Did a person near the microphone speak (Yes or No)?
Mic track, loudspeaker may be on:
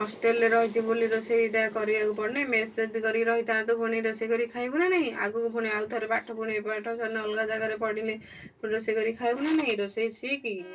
Yes